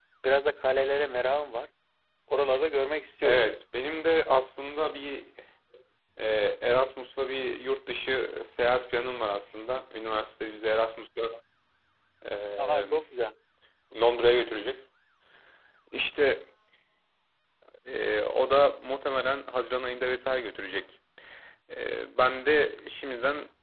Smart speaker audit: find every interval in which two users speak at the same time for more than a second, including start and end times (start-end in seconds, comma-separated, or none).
none